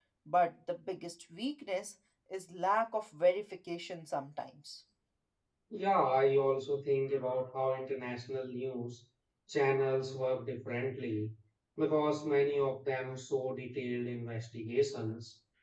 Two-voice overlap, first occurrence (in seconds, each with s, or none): none